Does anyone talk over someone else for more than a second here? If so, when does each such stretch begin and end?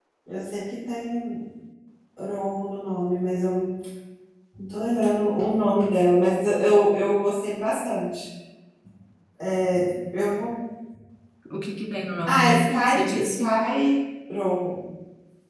12.3-13.6

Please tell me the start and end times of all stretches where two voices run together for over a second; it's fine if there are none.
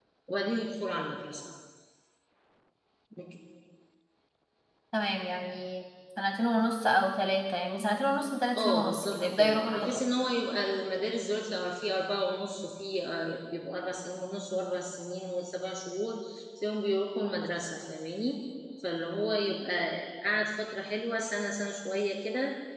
8.6-10.0

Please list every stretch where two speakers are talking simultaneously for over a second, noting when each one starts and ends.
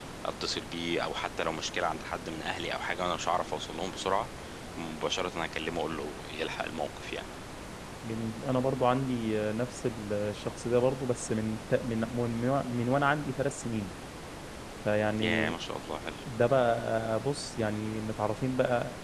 none

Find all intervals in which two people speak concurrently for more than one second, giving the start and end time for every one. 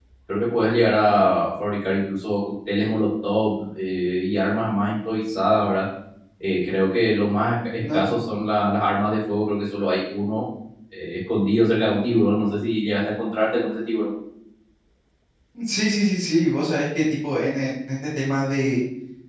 none

